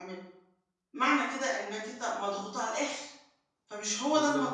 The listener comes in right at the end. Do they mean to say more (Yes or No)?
Yes